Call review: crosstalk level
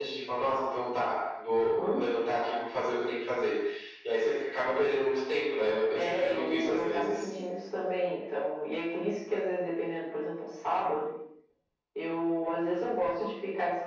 present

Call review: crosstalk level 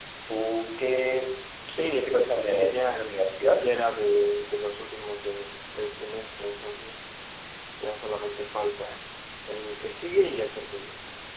present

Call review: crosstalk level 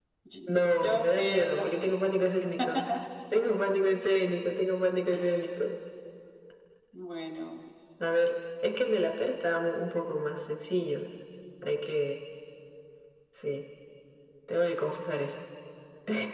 present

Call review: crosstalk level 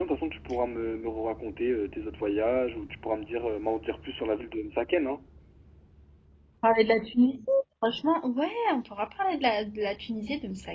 none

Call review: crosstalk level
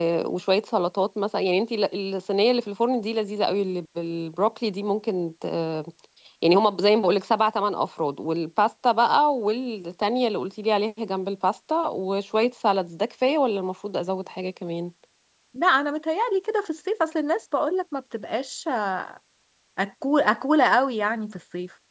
none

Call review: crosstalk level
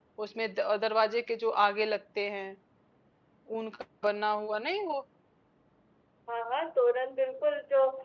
none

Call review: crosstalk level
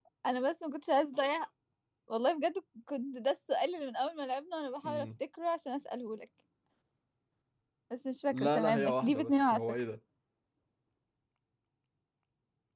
present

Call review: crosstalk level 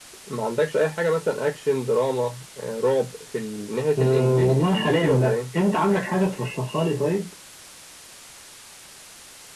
present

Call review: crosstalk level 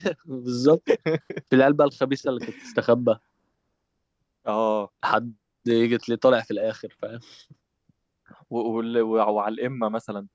none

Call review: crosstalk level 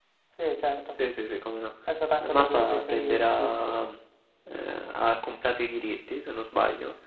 present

